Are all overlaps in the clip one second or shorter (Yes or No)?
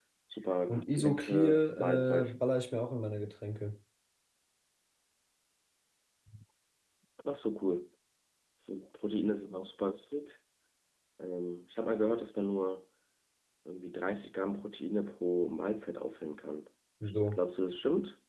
No